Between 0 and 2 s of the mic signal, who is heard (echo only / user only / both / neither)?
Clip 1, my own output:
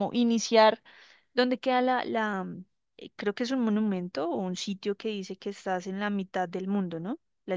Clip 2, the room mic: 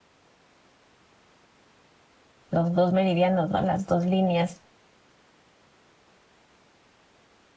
neither